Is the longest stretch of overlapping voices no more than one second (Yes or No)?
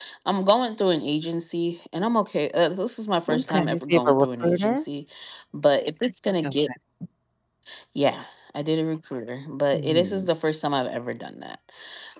No